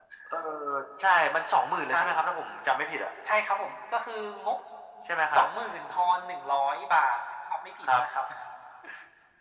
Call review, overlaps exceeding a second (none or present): none